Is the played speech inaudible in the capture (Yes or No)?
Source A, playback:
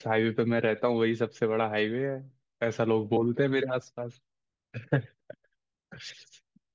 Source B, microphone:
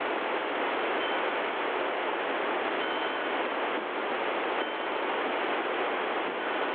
Yes